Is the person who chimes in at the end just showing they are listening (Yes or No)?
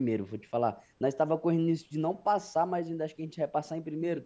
No